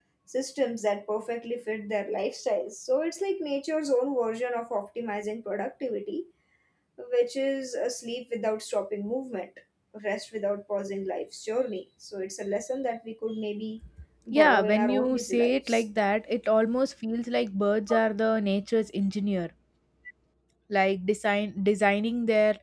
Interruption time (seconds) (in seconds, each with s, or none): 14.3 s